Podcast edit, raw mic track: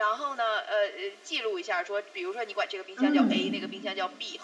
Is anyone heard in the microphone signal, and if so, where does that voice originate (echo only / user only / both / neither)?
both